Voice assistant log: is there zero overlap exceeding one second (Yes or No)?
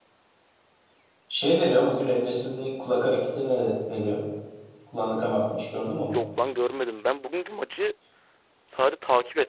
Yes